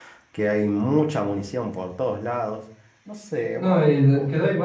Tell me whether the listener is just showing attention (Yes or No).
No